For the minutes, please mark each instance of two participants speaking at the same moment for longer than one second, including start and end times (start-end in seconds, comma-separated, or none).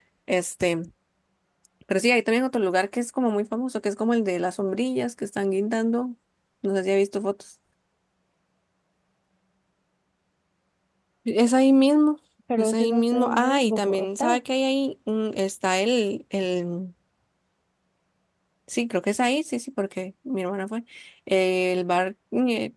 12.6-14.4